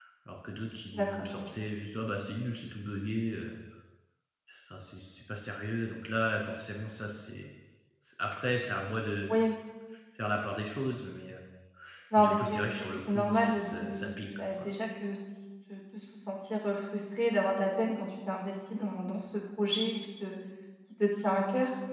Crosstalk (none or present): present